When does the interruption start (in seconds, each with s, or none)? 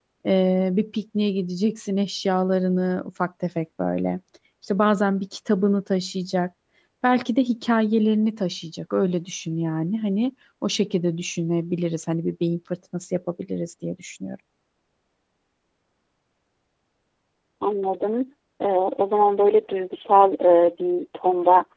none